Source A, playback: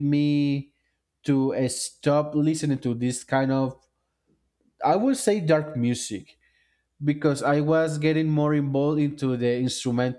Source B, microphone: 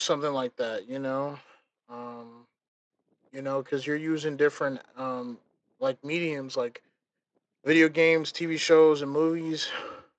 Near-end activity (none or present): present